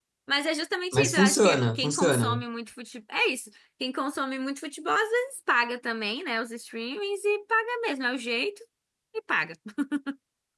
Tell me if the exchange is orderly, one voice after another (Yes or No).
No